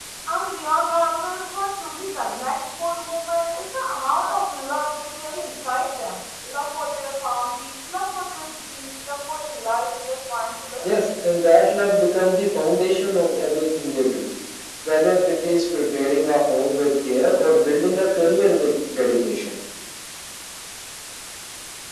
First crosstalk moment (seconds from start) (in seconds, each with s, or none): none